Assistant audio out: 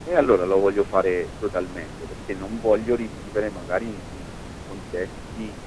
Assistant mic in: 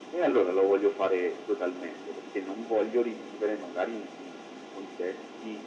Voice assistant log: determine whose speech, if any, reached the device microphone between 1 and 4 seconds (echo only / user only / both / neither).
echo only